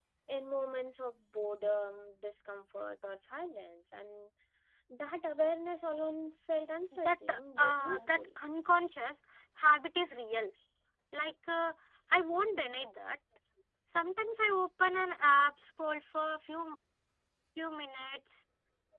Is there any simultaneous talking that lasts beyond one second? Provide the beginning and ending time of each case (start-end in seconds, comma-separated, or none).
7.0-8.2